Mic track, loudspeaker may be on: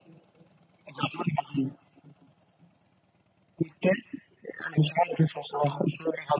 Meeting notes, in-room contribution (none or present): none